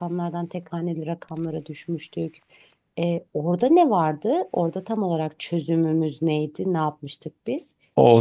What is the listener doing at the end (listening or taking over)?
taking over